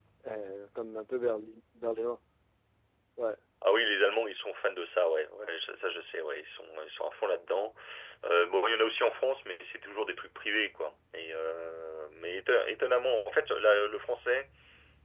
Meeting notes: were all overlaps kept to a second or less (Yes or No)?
Yes